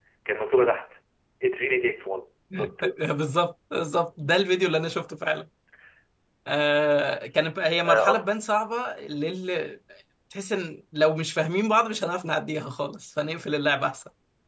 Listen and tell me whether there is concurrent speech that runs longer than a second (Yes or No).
No